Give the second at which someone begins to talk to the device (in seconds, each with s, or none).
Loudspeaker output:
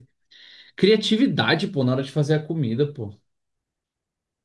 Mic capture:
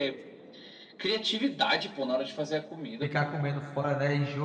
3.0 s